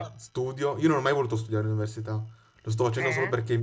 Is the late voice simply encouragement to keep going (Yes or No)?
Yes